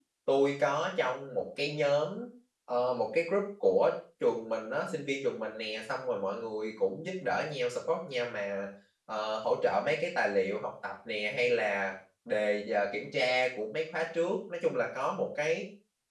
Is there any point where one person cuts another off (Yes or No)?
No